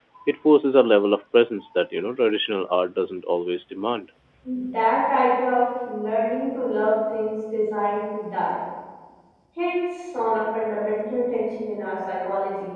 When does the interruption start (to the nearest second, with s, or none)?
none